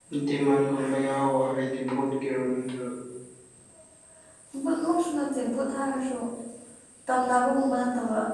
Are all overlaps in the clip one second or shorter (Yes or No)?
Yes